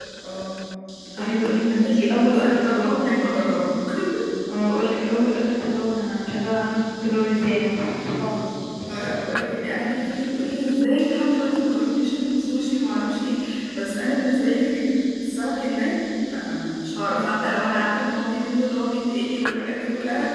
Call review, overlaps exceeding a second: present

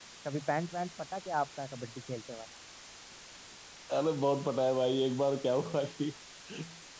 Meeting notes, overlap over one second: none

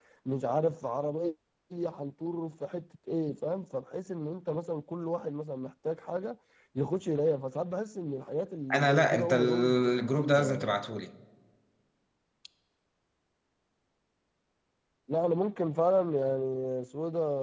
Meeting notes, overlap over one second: present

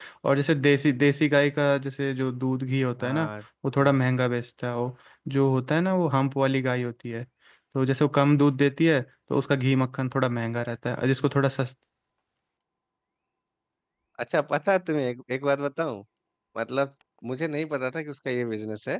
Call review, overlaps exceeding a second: none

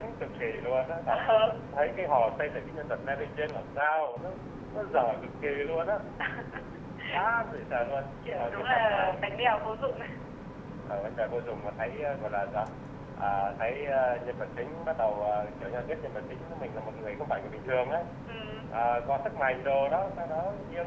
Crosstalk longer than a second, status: present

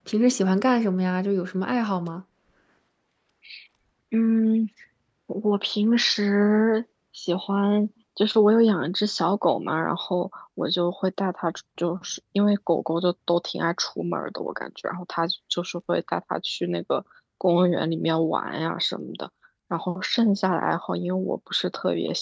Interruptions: none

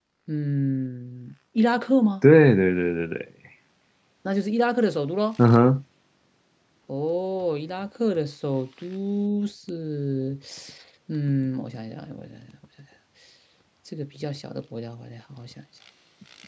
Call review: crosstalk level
none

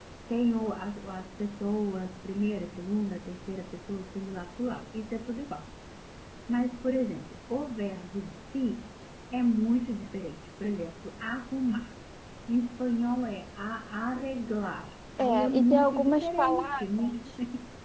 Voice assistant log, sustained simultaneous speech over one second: present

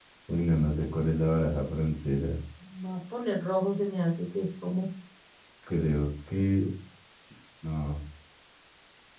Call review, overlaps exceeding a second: none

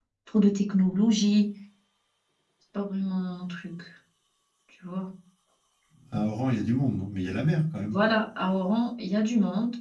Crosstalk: none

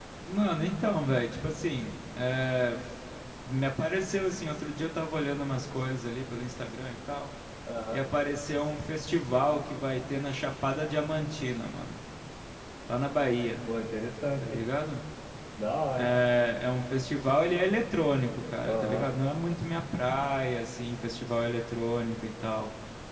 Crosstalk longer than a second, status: none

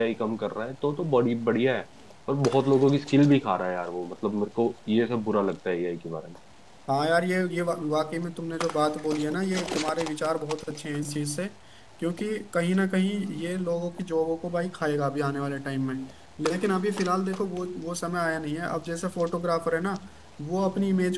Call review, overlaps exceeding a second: none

